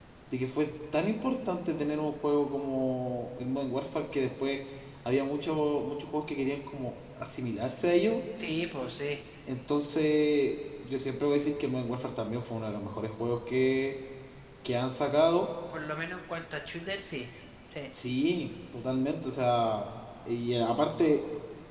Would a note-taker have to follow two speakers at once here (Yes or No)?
No